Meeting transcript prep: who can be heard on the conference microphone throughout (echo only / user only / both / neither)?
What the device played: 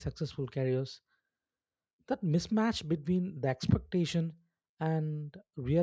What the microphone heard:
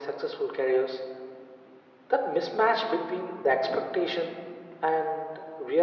echo only